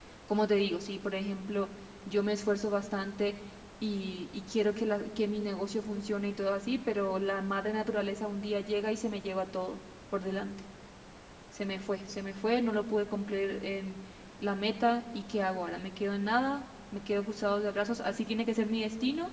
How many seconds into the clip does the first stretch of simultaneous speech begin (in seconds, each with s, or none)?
none